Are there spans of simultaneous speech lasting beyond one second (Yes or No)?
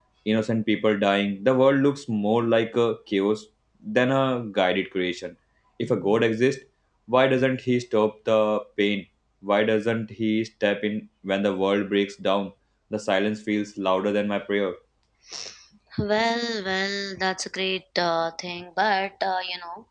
No